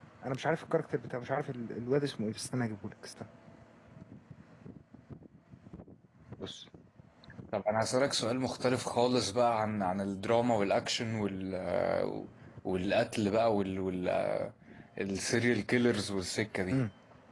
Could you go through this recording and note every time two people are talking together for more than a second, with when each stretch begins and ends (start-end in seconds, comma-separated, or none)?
none